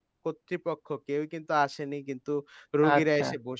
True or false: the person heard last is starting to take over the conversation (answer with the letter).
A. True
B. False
B